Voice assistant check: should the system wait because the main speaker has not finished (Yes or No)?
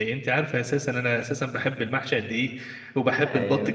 Yes